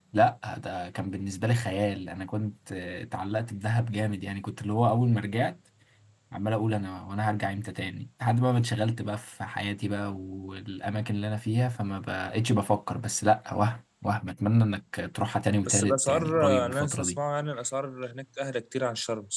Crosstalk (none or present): present